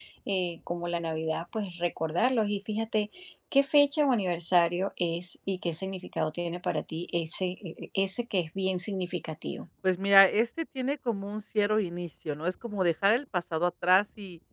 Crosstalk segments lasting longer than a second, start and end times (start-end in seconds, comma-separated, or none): none